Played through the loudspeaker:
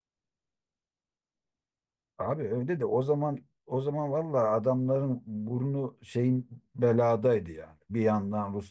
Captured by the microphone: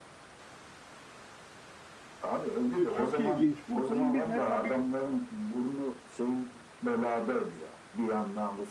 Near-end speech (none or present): present